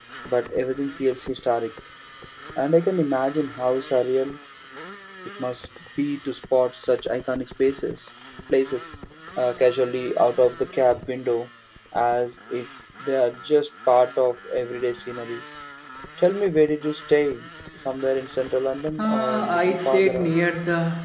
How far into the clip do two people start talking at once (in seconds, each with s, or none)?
19.0 s